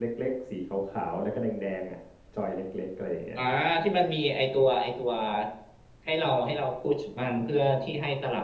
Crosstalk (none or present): none